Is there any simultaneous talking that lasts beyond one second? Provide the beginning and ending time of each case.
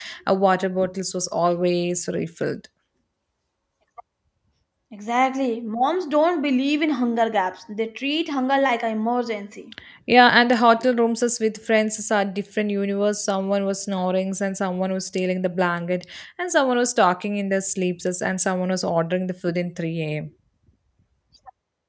none

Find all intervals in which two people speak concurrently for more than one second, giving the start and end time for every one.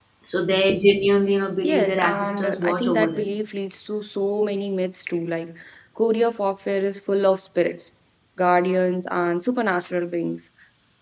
1.6-3.3

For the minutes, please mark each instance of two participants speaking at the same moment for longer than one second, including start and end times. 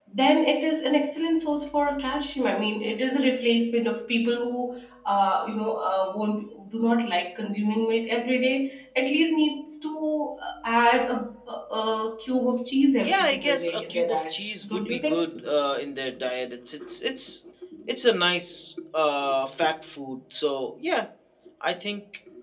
13.0-15.3

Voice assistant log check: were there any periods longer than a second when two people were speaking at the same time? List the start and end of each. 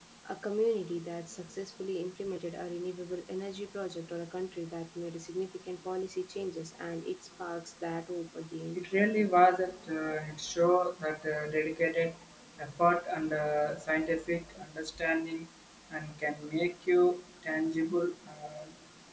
none

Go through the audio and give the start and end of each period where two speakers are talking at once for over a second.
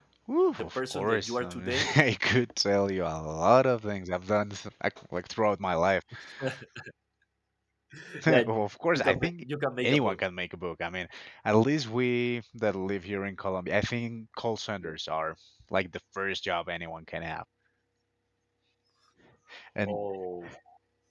0.6-1.9

